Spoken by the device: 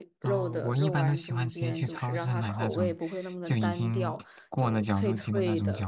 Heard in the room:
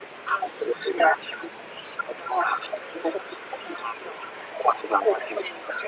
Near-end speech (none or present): none